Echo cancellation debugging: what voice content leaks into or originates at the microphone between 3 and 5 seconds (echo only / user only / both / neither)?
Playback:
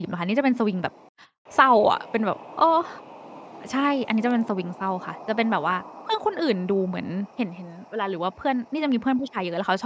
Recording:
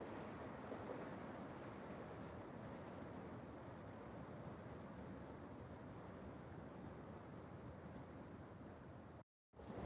neither